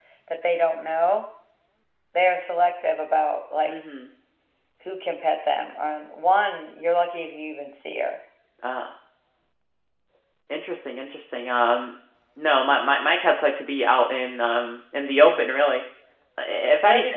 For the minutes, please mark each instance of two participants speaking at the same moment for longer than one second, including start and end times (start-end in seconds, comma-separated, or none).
none